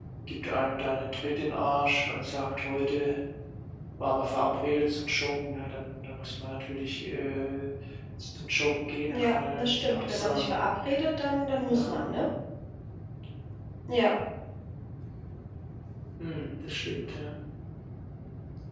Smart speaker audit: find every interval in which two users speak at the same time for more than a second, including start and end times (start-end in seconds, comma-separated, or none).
9.1-10.6